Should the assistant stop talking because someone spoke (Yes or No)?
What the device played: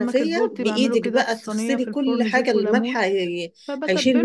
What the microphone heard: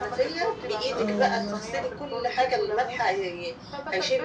Yes